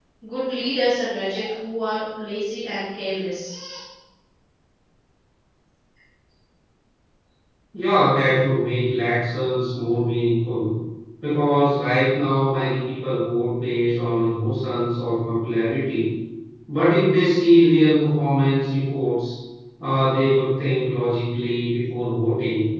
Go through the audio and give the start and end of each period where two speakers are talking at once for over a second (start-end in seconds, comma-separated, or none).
none